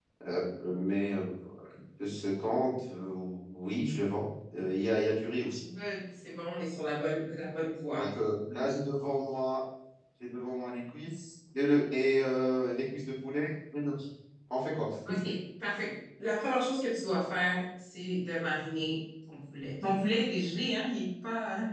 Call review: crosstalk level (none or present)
none